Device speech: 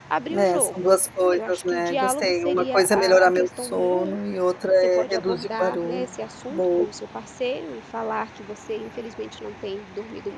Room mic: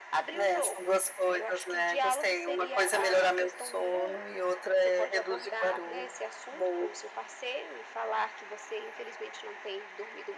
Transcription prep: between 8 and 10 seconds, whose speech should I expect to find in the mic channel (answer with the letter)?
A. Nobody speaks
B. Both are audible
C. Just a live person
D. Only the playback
D